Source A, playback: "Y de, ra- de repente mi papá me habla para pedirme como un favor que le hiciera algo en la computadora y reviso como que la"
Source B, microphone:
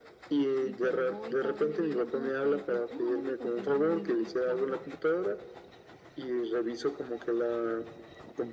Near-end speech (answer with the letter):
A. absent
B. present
B